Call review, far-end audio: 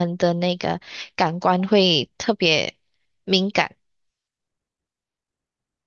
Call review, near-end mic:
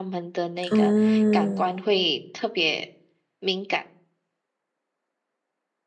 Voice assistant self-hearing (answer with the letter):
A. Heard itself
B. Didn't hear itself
A